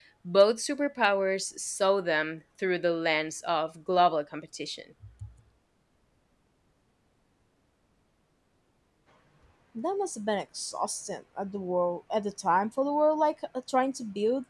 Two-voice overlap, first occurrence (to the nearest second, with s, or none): none